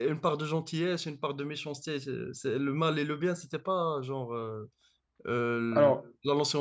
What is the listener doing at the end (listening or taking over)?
listening